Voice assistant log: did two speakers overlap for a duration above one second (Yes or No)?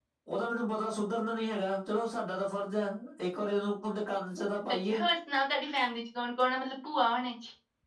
No